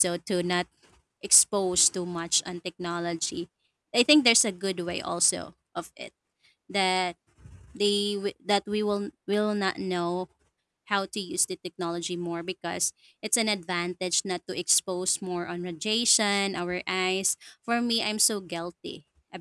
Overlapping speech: No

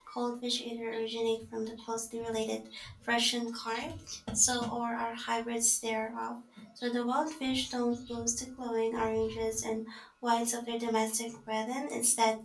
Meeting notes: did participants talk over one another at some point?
No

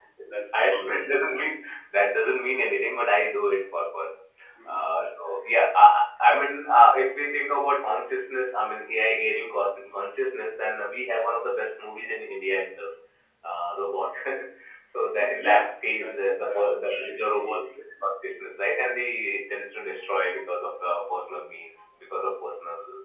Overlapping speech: Yes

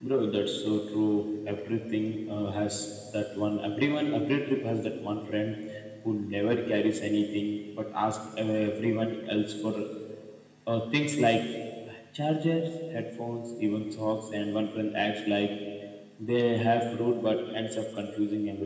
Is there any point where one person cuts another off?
No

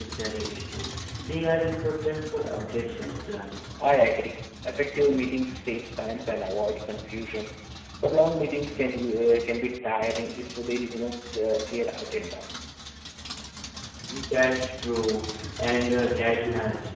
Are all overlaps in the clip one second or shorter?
Yes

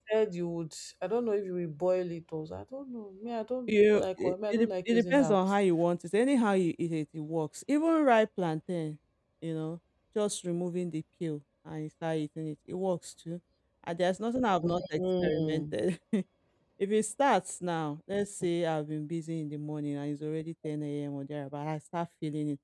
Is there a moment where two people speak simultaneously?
Yes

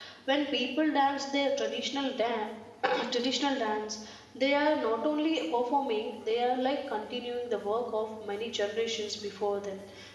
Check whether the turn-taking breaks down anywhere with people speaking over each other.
No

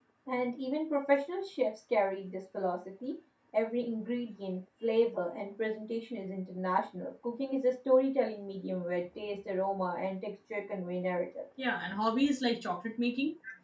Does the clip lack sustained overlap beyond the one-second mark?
Yes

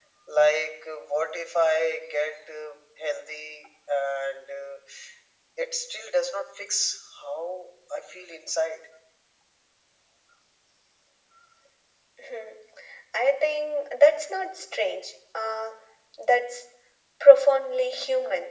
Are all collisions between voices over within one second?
Yes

